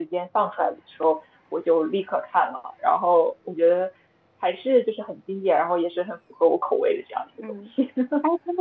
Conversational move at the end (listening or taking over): taking over